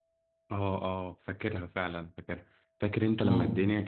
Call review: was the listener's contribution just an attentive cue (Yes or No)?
Yes